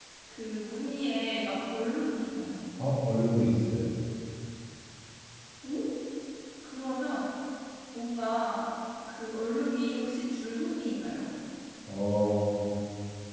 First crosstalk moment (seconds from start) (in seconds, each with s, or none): none